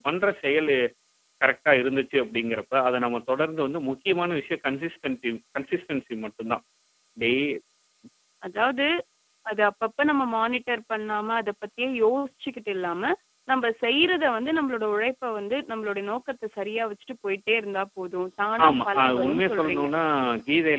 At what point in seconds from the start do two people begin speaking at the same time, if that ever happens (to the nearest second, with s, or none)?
19 s